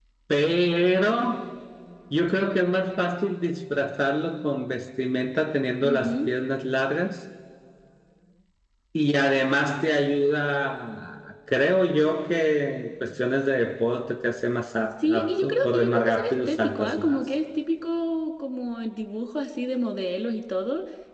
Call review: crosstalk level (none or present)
present